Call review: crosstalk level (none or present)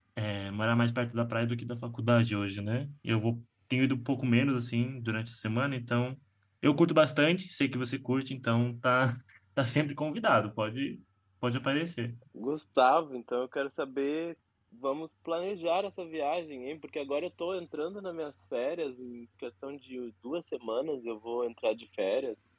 none